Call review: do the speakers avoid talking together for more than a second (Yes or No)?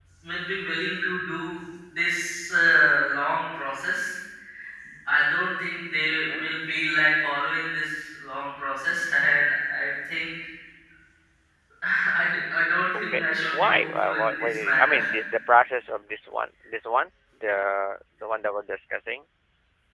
No